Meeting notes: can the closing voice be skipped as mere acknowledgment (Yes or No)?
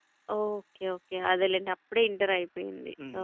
No